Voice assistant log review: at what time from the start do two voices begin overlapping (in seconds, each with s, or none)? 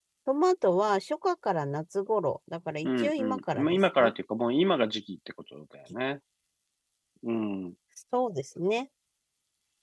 2.8 s